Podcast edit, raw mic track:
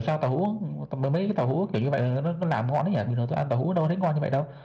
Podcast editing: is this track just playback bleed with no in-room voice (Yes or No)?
Yes